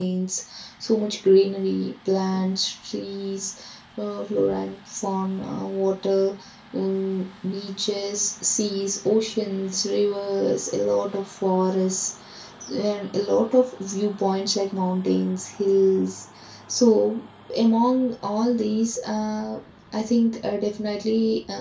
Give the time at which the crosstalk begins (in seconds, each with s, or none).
none